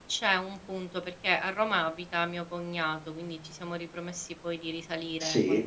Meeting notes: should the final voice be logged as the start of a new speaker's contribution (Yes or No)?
No